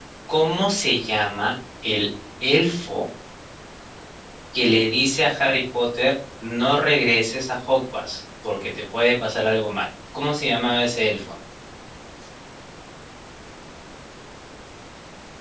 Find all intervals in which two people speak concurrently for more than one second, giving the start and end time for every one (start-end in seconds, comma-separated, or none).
none